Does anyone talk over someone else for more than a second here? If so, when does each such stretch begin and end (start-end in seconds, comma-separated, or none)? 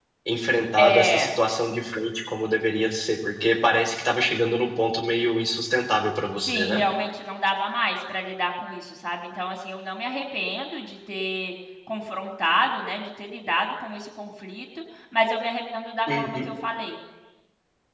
none